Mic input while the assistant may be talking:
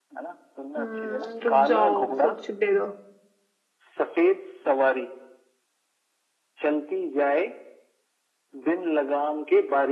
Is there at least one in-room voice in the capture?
Yes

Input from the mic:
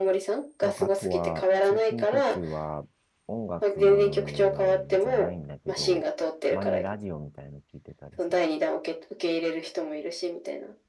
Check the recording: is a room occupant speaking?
Yes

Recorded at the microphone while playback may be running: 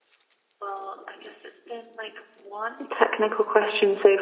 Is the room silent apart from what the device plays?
Yes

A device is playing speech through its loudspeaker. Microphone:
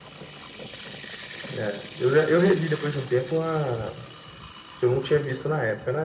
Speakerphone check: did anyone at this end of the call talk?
No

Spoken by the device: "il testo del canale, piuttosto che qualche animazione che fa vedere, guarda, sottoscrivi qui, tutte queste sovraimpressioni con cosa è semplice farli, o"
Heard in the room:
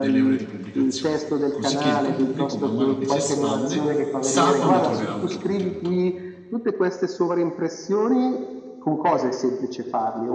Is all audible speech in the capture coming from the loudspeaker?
No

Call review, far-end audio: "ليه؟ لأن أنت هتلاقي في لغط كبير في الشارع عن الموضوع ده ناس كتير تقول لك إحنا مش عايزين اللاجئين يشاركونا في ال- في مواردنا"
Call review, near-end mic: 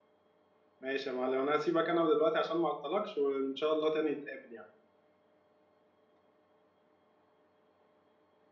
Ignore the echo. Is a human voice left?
Yes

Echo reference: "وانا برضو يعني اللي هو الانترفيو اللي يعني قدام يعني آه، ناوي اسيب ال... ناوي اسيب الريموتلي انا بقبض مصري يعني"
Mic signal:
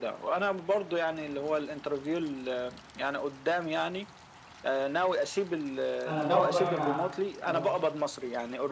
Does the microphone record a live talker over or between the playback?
Yes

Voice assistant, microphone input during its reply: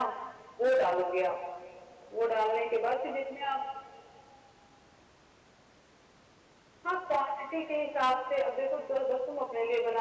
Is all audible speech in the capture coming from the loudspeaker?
Yes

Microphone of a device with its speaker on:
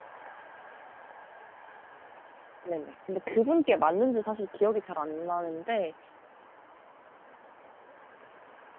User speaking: Yes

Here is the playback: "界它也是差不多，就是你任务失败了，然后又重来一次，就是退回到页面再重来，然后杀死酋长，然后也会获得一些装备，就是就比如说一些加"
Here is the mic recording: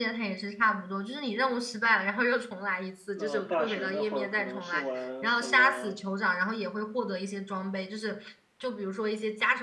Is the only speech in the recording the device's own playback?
No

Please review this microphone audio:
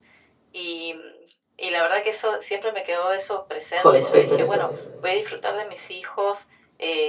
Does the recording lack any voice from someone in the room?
No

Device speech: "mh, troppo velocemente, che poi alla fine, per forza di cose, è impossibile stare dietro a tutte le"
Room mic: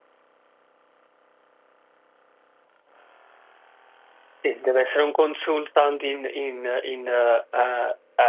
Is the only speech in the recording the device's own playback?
No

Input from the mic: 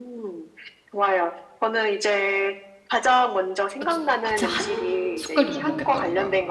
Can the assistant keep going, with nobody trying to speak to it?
No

